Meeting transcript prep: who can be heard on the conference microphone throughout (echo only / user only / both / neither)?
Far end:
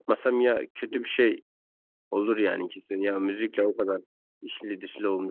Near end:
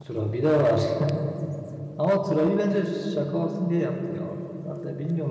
user only